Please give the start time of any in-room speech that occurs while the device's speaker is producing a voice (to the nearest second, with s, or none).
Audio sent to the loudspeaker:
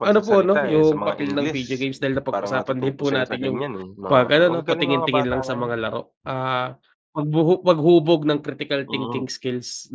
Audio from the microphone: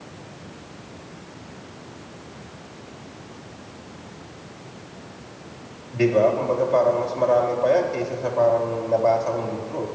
6 s